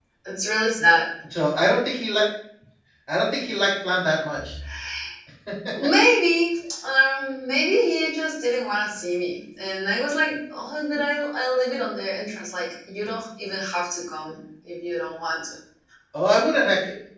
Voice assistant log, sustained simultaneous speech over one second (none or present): none